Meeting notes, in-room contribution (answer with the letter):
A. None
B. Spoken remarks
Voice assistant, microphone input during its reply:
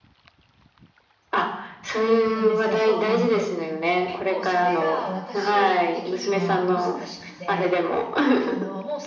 B